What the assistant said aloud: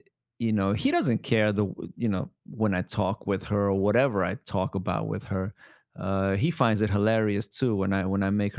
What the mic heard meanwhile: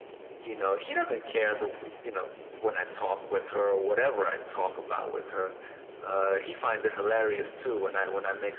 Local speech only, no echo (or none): none